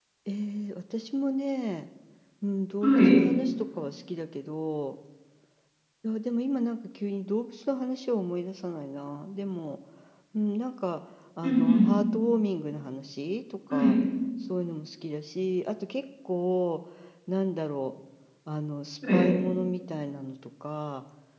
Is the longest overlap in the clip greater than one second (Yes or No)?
No